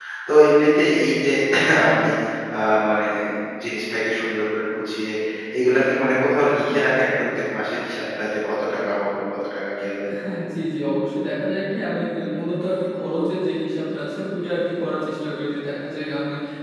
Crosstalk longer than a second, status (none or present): none